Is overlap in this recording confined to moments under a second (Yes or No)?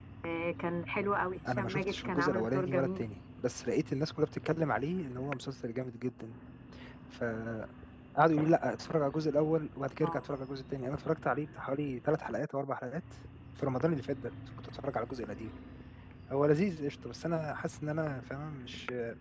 No